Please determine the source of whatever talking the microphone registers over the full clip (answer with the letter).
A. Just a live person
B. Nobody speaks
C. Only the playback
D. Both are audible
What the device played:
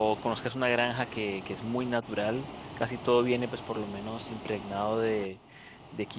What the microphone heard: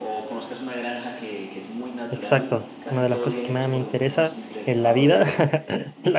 D